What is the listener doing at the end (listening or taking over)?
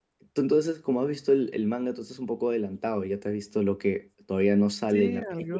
taking over